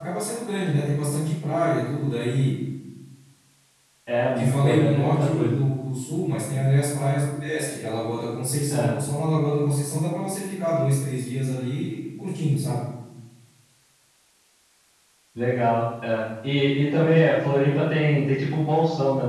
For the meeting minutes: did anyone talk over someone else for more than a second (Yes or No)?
Yes